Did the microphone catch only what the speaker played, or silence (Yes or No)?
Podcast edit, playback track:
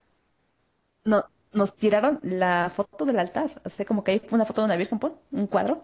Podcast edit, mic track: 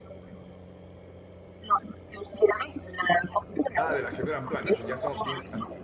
No